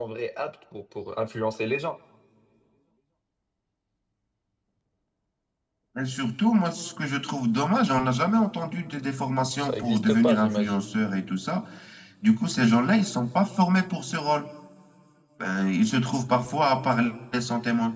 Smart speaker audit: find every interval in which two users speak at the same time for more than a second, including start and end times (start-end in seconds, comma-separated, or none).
9.6-10.8